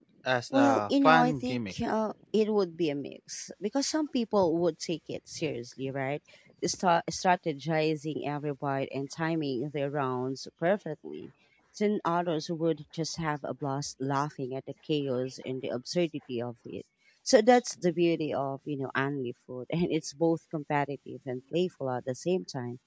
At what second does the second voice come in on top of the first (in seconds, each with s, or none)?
0.5 s